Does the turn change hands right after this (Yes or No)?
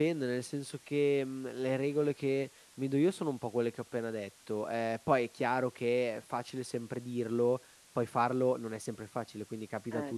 No